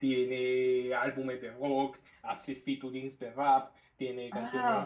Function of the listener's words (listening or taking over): taking over